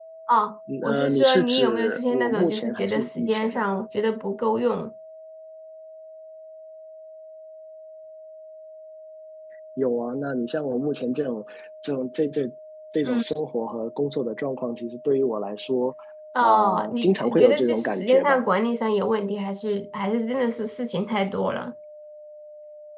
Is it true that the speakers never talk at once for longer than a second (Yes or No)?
No